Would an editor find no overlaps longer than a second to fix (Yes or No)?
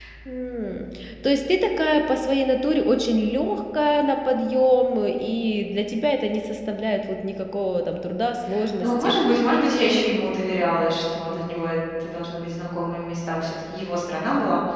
Yes